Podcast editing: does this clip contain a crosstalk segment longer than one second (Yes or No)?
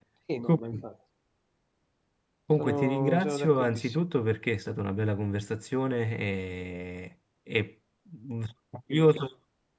Yes